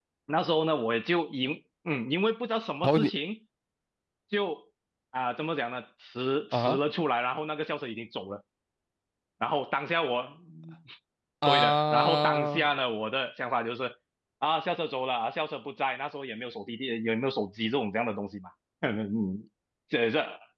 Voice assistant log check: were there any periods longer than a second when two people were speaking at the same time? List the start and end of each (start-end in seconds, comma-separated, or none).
11.5-12.7